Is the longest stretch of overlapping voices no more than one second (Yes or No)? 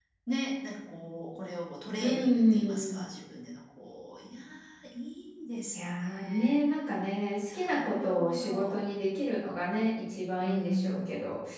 No